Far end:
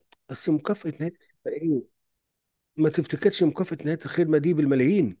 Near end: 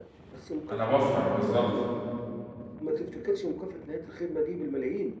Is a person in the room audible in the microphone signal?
Yes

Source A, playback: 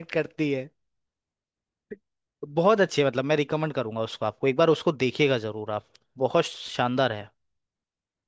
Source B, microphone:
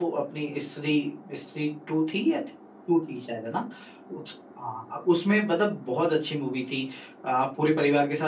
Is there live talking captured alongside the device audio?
Yes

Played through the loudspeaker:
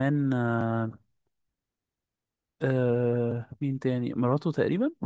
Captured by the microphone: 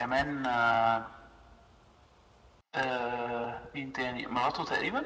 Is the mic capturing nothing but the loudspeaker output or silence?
Yes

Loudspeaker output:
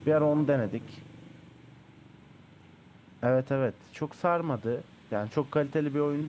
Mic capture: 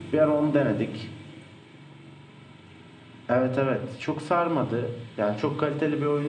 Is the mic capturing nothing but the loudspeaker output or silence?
Yes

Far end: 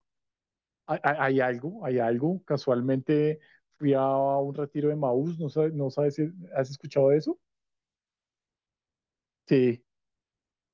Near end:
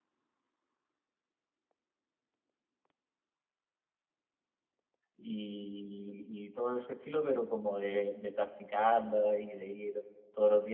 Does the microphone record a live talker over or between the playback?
Yes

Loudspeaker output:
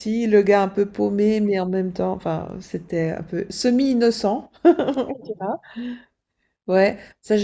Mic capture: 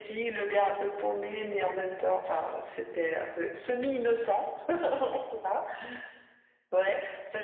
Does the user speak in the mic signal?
No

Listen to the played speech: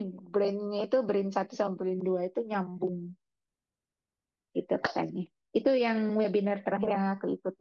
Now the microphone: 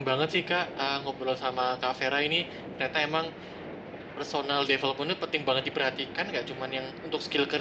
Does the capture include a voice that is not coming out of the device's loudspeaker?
Yes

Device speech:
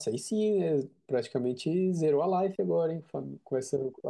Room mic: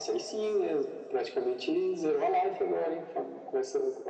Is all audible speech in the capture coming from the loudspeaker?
Yes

